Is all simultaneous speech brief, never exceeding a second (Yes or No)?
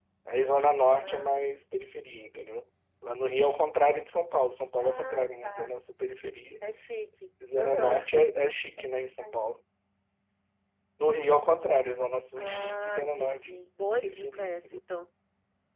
No